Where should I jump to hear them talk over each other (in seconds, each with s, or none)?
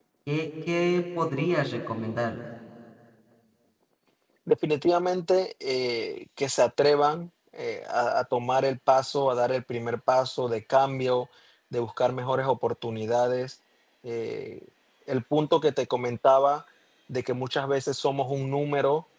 none